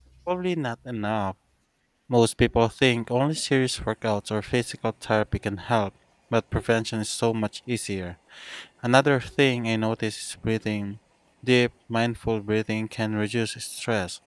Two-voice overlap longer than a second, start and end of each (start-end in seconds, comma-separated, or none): none